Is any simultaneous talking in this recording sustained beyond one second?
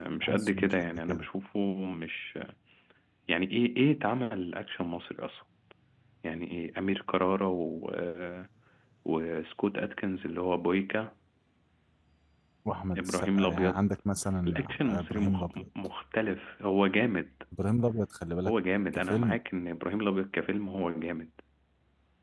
Yes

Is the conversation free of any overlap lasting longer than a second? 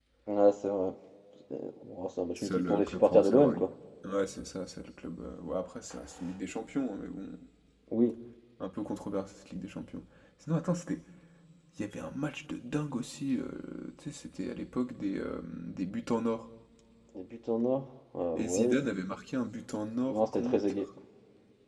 No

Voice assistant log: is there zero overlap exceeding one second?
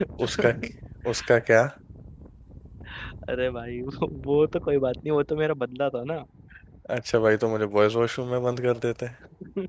Yes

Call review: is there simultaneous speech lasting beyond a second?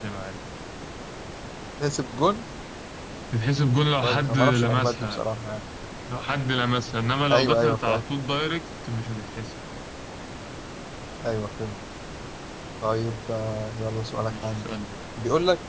Yes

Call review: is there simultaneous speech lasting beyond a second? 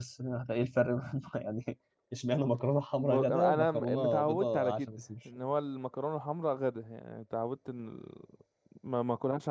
Yes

